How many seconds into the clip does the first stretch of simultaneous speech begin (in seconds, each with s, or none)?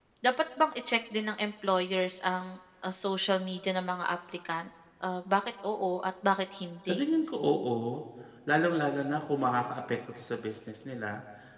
none